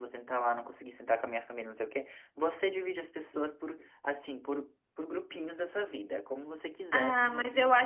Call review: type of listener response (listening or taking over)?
taking over